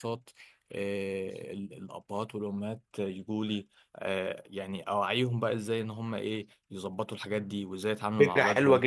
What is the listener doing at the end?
taking over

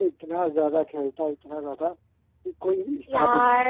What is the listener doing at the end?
taking over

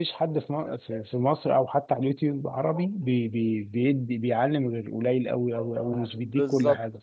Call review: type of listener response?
taking over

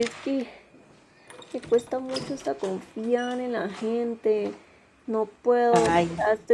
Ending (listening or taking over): listening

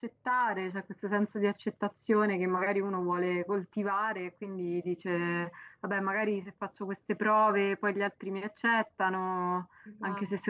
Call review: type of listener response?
listening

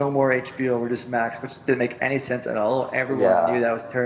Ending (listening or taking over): listening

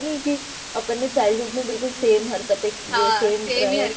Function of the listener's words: taking over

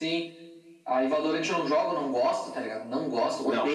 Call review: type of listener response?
taking over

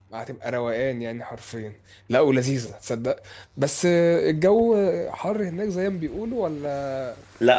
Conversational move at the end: taking over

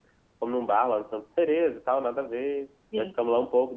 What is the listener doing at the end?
listening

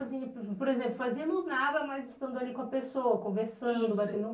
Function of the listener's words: taking over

